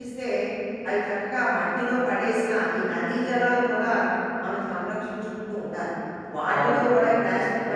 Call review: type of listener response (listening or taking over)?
listening